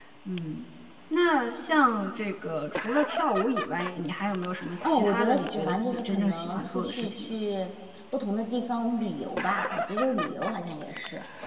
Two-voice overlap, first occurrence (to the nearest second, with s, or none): 5 s